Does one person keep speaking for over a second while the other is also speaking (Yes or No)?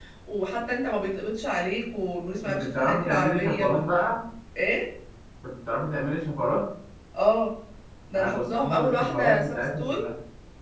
Yes